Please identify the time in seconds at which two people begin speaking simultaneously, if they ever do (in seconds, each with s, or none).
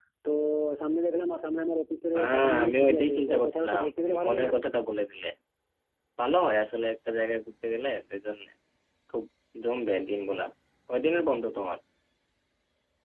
2.1 s